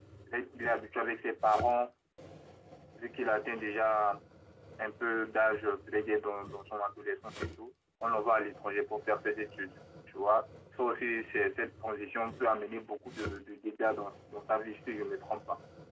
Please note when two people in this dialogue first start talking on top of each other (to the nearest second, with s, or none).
none